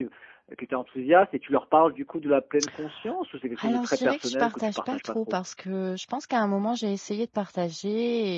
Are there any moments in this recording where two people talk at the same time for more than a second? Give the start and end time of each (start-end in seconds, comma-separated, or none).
3.6-5.4